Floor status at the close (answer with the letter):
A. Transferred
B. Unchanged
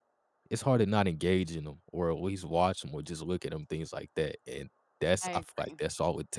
B